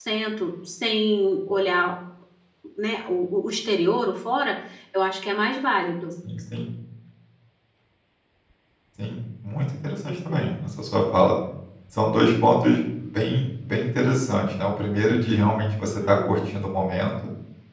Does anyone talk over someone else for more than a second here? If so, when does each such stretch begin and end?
none

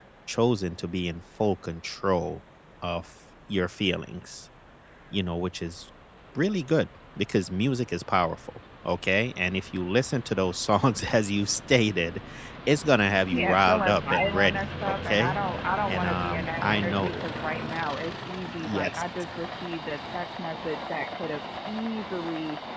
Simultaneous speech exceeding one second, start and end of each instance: 13.3-15.4, 15.9-17.2

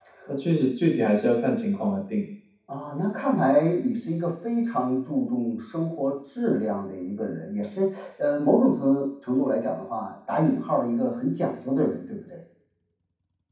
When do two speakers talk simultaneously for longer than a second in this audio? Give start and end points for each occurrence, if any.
none

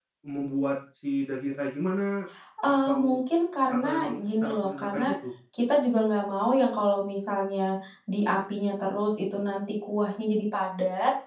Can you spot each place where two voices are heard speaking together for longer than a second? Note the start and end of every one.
3.7-5.1

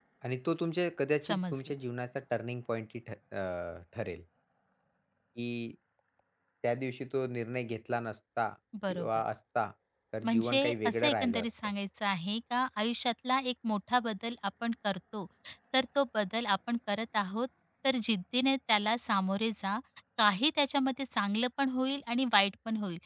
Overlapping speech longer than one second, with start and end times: 10.2-11.5

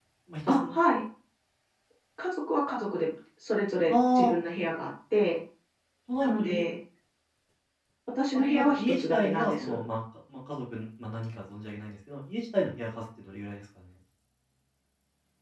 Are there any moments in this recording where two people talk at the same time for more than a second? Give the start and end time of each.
8.3-9.8

